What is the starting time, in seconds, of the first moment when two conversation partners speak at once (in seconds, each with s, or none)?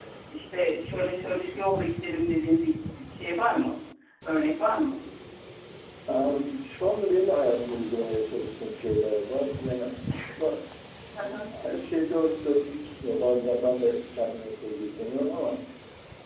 none